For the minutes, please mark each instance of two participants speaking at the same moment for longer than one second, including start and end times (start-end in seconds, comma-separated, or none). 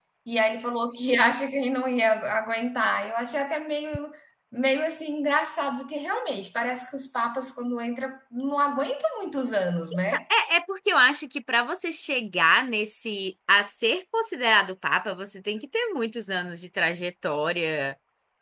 none